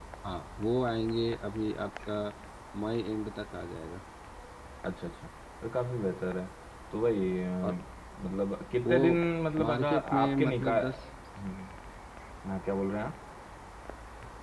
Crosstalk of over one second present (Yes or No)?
Yes